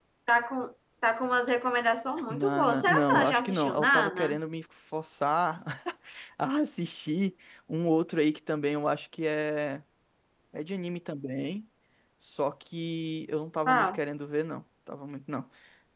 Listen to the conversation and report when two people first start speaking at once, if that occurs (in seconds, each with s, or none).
2.3 s